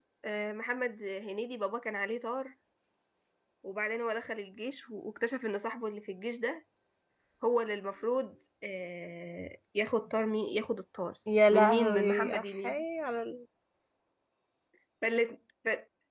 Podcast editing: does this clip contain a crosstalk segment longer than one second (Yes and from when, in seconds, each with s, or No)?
Yes, from 11.3 s